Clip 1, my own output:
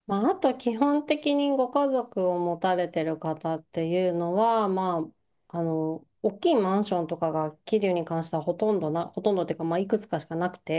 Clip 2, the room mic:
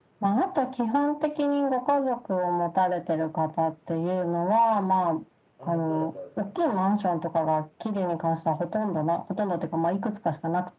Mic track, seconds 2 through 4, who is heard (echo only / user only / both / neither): echo only